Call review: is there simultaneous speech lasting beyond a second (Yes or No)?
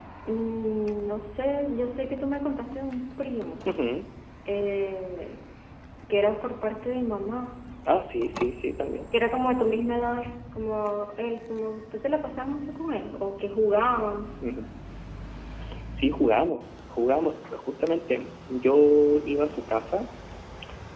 No